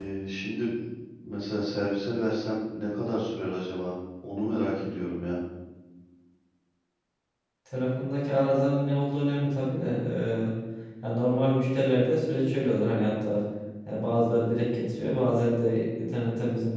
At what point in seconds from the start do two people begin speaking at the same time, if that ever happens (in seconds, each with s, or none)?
none